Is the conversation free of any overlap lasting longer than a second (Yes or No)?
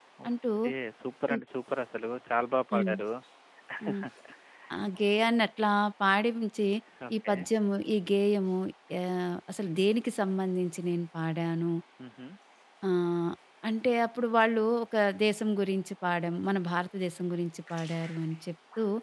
Yes